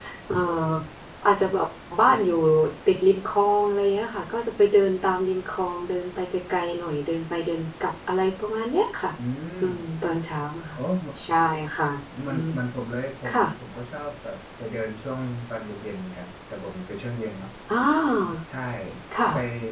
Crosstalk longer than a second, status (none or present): none